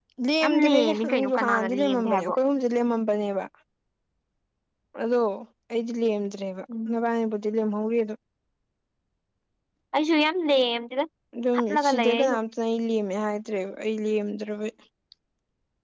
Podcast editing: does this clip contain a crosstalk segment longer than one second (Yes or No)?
Yes